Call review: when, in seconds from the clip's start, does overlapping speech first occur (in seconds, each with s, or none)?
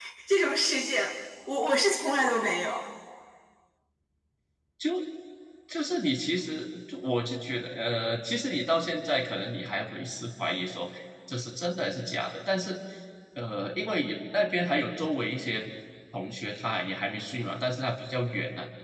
none